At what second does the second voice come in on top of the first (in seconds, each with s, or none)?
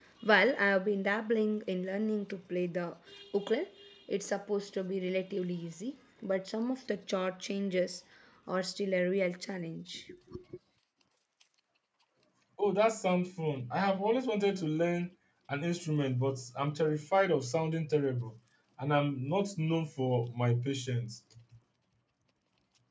none